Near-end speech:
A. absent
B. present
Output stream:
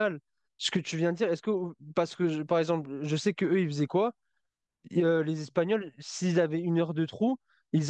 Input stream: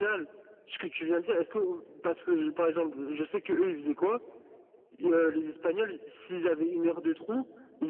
A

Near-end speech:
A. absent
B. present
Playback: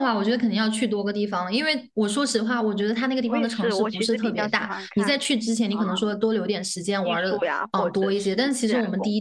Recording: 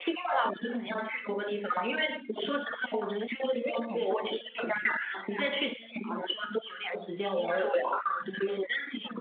A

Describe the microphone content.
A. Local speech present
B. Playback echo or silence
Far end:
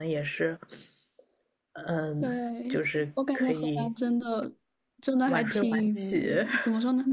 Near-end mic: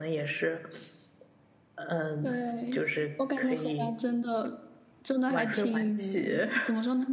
B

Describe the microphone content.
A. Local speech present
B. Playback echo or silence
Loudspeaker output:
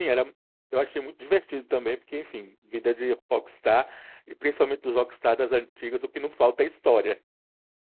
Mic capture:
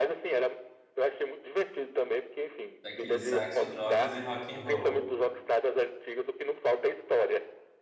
A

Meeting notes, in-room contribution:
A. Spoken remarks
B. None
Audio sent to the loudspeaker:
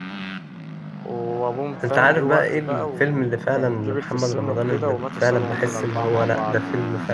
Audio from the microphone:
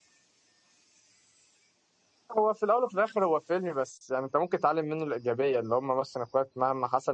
A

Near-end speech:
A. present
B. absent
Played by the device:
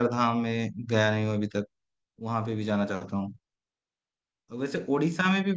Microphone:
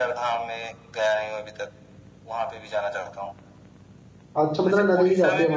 A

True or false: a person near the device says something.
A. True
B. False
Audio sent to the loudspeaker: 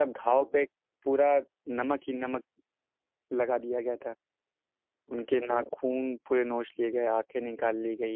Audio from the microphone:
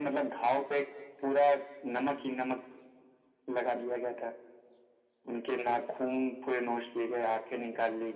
B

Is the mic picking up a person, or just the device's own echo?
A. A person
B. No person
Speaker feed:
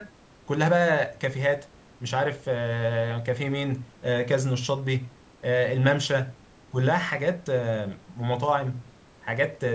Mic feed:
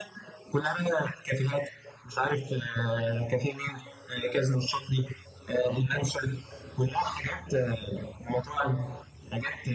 B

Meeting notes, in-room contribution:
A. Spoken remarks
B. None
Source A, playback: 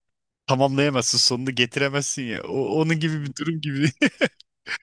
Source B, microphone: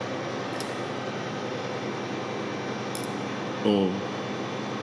A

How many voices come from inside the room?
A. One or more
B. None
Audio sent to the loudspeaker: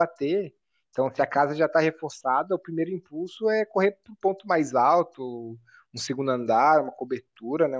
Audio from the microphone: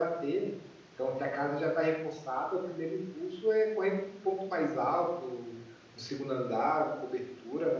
B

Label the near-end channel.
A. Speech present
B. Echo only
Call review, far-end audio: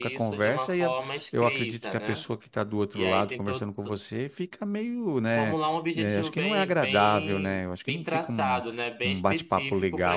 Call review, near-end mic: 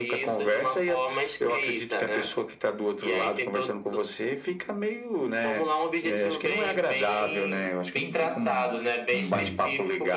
A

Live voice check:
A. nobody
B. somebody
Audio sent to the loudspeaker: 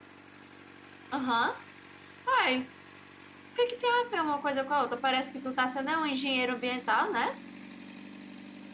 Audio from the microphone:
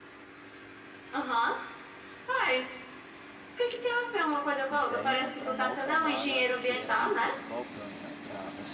B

